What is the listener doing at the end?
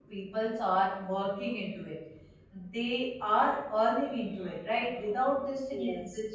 listening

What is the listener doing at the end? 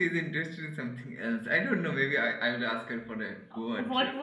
taking over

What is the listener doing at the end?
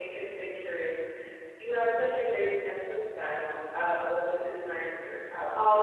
taking over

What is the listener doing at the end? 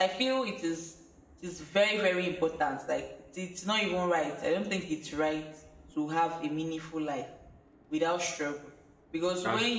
listening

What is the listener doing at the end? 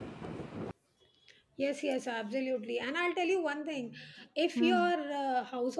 listening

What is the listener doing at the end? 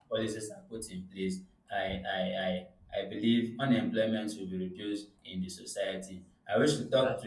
listening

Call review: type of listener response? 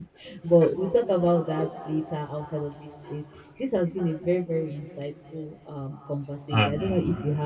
listening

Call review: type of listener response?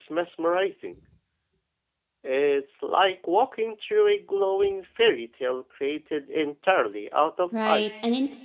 taking over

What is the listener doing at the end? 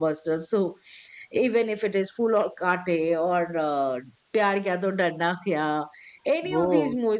listening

